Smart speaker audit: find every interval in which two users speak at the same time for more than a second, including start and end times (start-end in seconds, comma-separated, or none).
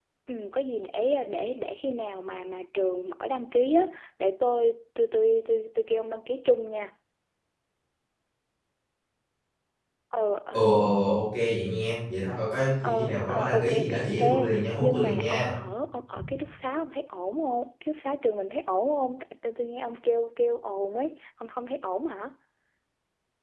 12.8-15.5